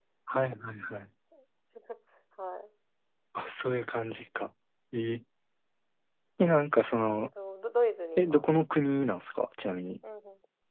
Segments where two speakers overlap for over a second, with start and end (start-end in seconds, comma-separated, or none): none